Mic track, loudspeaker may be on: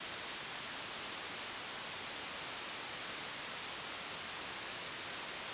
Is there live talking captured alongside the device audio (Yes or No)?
No